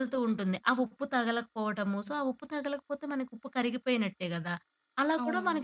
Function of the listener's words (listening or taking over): listening